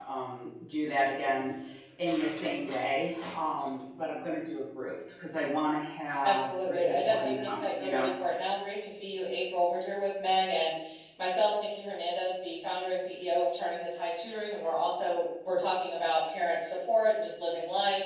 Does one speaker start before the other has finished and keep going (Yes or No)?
Yes